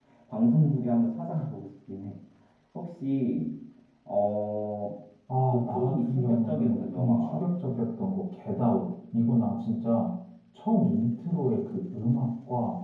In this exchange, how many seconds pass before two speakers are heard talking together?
5.5 s

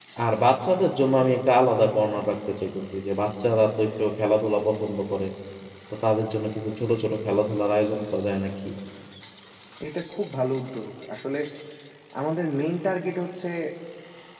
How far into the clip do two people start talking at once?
none

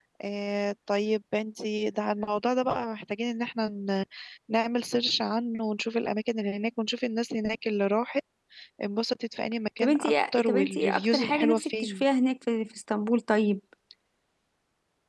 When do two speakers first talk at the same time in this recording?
9.8 s

